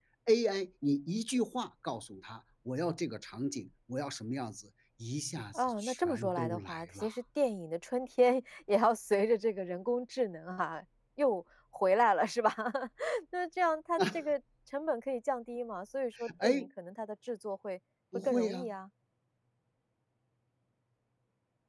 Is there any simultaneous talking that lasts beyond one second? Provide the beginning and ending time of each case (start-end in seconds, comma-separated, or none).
5.5-7.2